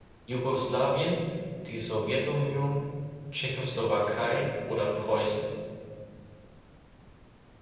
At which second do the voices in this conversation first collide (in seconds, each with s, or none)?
none